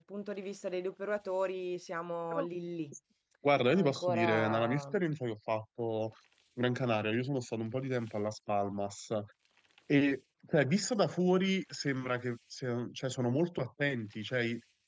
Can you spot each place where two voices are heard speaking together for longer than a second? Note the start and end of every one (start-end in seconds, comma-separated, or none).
3.8-5.0